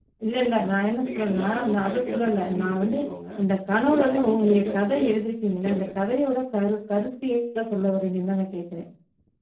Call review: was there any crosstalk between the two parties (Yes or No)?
Yes